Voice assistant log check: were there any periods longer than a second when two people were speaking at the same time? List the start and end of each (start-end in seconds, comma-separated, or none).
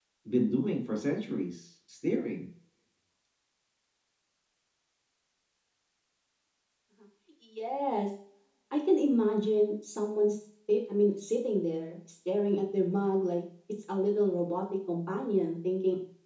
none